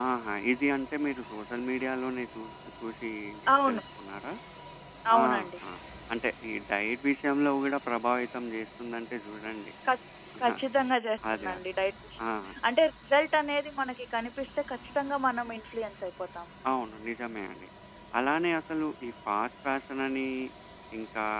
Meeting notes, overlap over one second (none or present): none